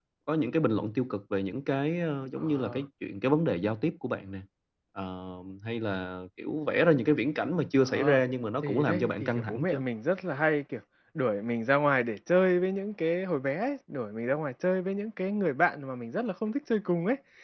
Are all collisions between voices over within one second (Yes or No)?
No